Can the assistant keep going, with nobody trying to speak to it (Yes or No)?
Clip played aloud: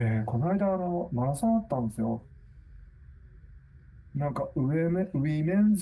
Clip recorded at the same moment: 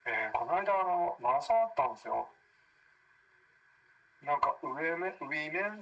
Yes